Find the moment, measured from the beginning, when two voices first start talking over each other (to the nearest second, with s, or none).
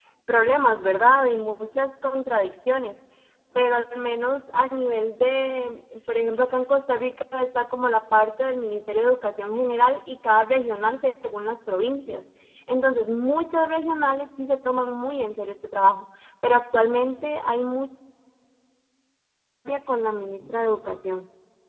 none